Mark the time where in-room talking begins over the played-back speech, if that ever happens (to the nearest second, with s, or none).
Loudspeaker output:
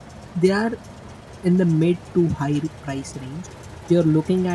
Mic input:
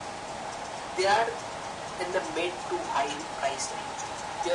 none